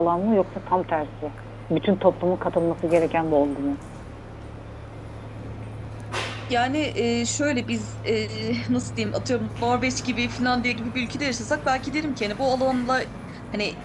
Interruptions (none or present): none